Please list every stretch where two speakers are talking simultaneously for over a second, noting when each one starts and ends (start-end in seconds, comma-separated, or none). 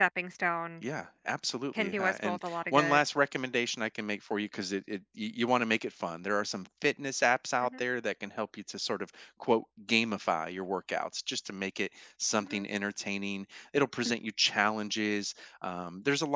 1.8-3.0